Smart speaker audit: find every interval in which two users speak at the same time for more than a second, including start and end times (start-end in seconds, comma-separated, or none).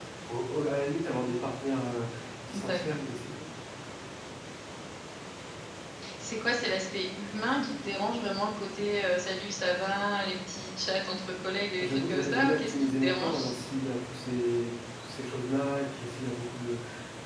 11.8-13.5